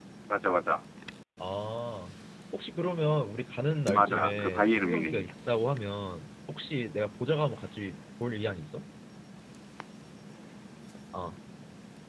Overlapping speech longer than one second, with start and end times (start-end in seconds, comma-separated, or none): 3.9-5.3